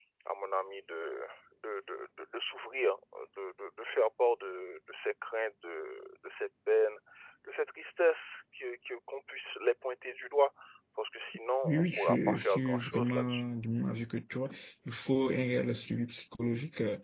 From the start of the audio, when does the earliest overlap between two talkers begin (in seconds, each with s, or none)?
11.7 s